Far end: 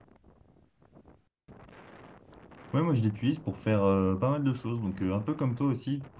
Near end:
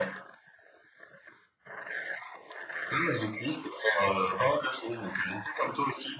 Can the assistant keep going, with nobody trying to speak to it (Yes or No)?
Yes